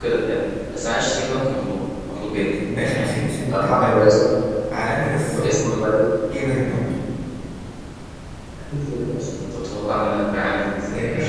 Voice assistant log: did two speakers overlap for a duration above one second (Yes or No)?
Yes